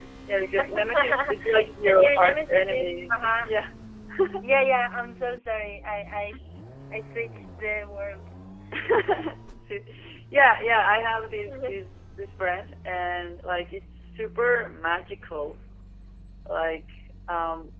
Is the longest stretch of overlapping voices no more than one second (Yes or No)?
No